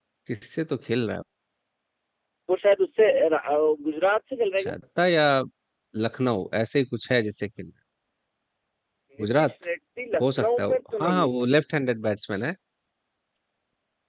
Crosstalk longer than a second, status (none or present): present